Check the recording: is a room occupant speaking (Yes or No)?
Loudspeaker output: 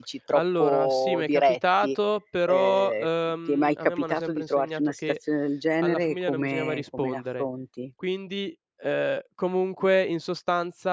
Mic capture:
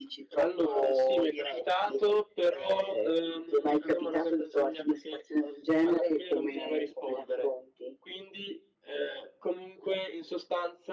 No